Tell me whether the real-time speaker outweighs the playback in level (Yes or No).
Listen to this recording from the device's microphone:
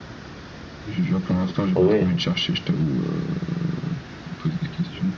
Yes